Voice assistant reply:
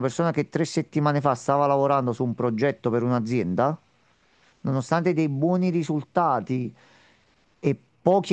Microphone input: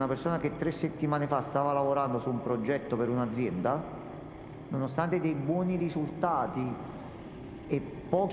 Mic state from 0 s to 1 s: echo only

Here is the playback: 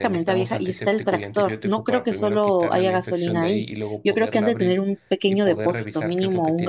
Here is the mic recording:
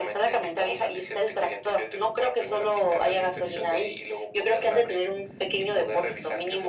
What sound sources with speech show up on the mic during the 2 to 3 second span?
echo only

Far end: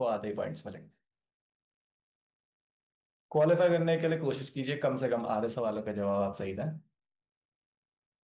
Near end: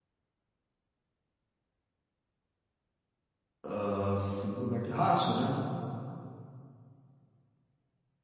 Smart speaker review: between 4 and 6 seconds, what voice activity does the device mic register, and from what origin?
user only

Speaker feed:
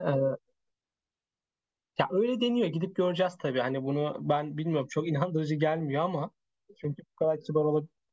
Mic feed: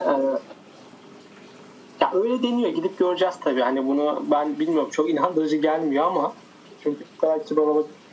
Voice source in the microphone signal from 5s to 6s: echo only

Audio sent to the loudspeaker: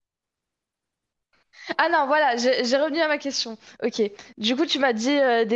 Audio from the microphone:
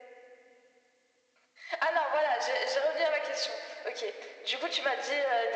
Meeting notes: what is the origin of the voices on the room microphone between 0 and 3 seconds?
echo only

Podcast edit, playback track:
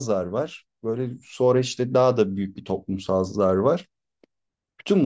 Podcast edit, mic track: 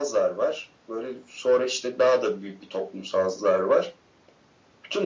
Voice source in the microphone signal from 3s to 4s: echo only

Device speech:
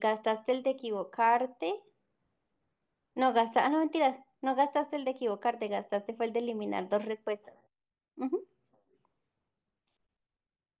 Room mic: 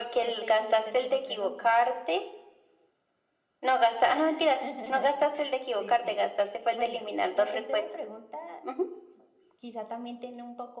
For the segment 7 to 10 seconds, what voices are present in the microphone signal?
both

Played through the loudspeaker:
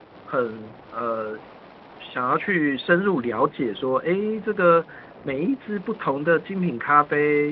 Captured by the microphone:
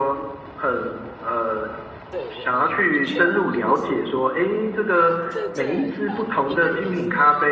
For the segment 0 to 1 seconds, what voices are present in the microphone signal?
echo only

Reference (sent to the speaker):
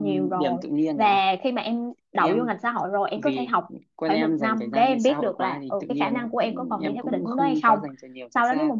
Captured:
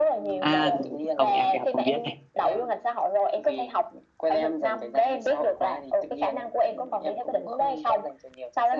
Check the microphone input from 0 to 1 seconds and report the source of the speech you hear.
both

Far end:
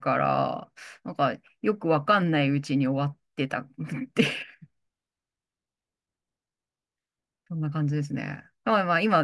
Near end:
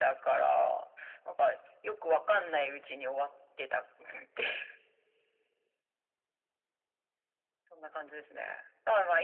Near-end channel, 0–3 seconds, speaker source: echo only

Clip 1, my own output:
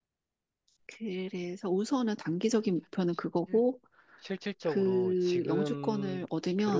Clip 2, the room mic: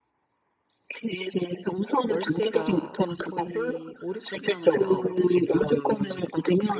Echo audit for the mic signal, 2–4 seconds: both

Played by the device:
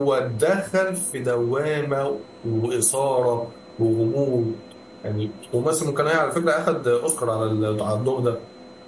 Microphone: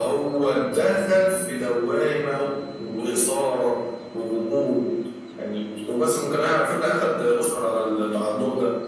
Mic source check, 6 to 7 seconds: echo only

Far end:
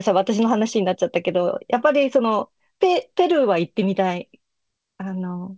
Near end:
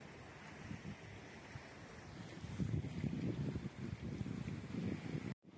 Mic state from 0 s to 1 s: neither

